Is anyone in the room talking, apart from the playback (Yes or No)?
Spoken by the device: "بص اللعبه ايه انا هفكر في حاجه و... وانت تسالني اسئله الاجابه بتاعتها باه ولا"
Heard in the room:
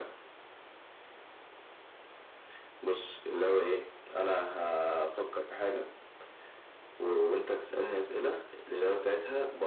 No